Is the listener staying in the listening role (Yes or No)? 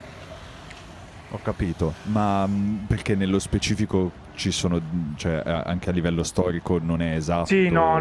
No